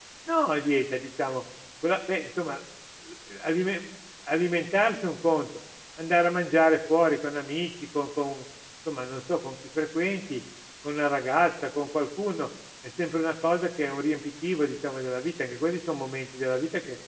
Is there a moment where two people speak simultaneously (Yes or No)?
No